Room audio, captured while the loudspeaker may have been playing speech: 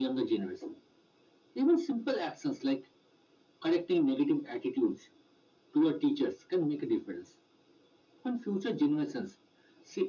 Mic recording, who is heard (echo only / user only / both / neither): echo only